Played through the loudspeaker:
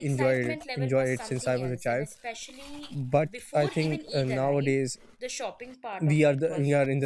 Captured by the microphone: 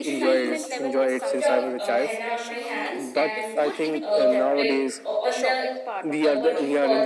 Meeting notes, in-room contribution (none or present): present